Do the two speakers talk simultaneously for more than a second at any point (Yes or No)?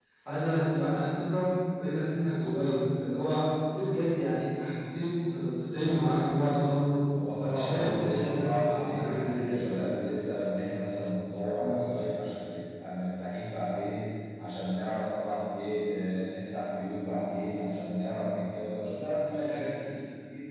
Yes